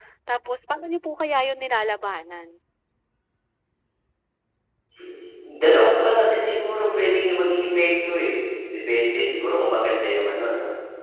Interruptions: none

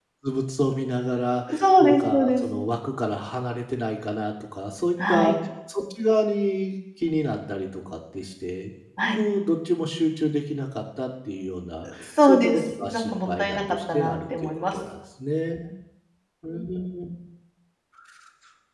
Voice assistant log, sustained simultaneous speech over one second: present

